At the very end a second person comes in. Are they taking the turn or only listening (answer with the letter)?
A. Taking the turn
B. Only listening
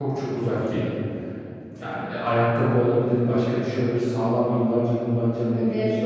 B